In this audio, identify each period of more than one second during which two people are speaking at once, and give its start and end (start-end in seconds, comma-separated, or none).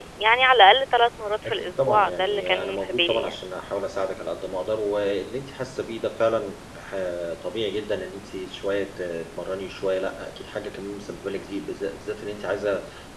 1.4-3.3